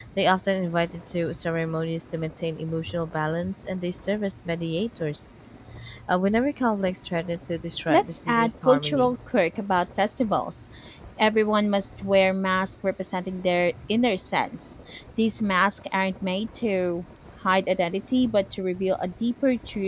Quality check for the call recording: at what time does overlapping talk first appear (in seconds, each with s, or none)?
7.9 s